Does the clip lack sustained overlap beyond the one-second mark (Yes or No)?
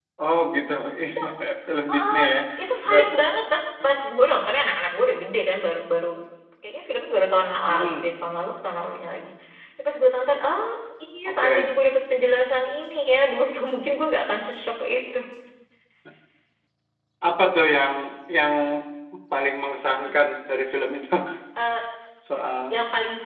Yes